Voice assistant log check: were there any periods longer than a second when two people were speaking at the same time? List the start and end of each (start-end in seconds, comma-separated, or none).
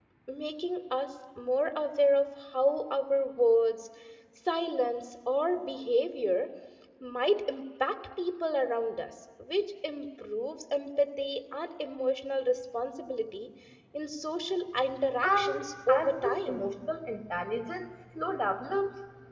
15.2-16.7